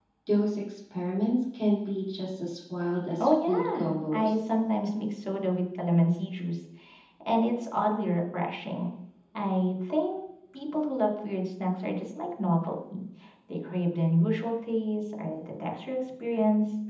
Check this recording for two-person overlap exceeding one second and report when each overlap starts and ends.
3.2-4.4

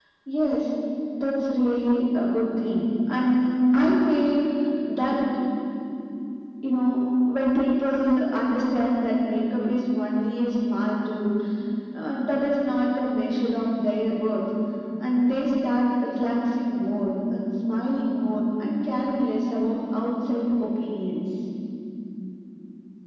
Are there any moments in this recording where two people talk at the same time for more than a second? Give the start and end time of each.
none

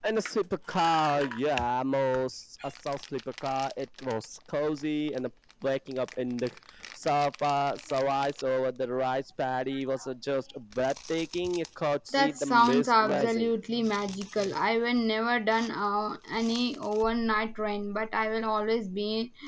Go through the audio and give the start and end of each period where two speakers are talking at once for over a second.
12.1-13.5

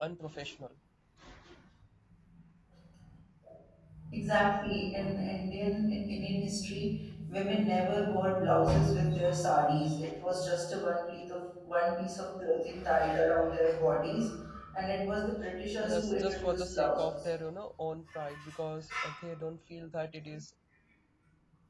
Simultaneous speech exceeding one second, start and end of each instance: 15.8-17.1

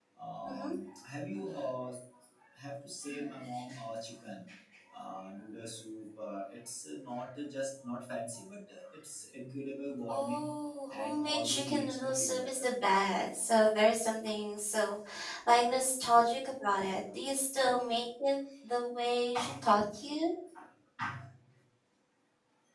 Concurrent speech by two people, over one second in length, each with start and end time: 10.9-12.7

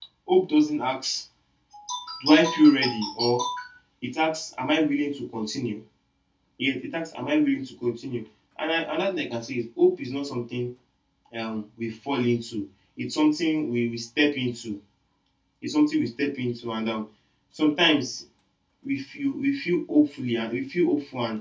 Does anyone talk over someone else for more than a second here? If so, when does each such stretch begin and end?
none

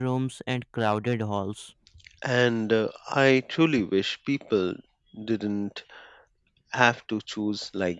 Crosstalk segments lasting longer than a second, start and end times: none

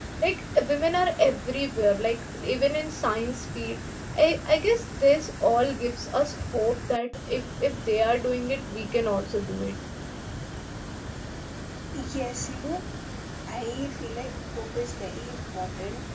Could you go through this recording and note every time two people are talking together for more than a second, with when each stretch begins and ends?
none

